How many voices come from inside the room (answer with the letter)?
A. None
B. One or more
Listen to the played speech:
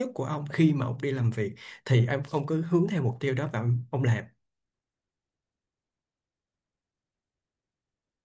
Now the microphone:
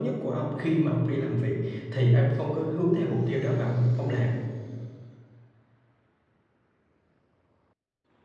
A